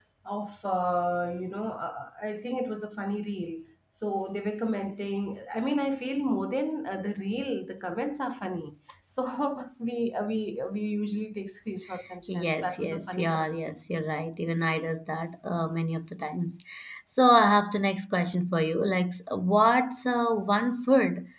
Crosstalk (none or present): present